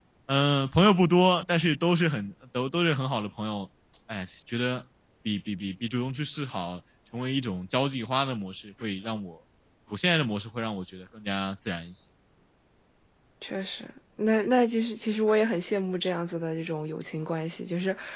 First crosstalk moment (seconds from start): none

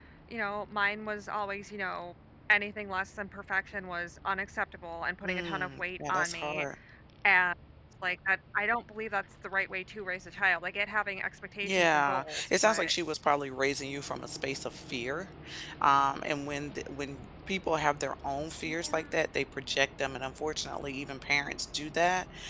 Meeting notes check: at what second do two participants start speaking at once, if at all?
5 s

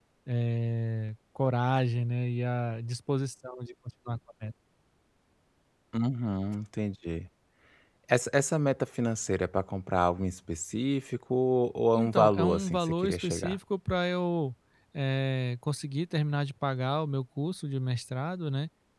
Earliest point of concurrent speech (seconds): 12 s

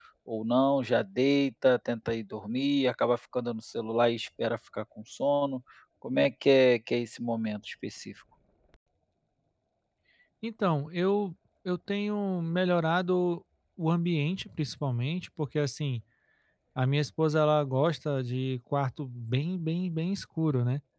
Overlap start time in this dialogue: none

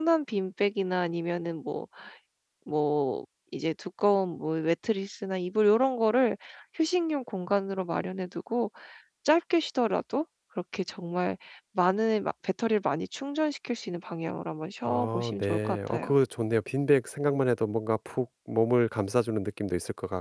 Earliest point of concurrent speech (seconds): 15 s

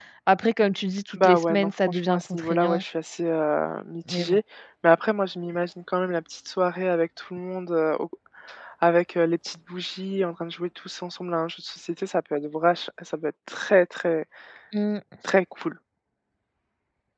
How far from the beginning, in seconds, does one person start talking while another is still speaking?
1 s

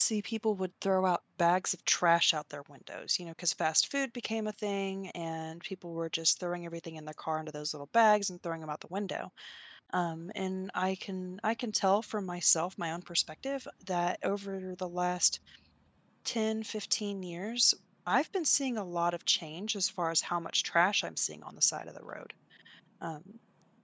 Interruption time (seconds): none

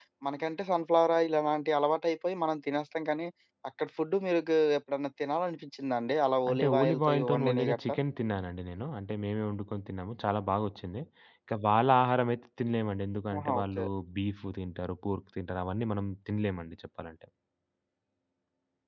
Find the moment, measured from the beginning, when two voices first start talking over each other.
6 s

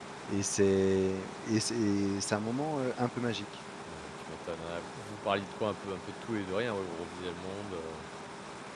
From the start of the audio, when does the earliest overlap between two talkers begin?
none

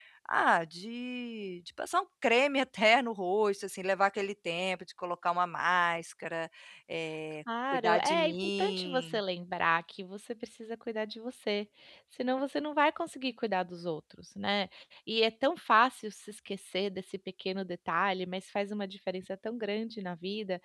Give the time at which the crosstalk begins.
8 s

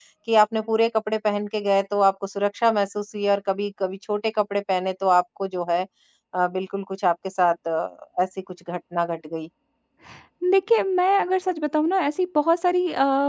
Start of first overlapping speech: none

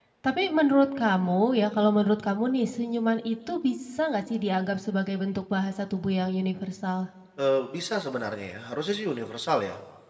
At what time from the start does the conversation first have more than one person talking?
none

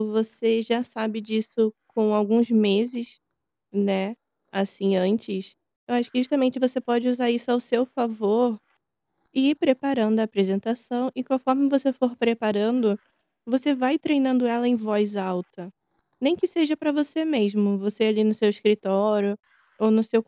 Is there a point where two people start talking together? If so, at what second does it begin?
none

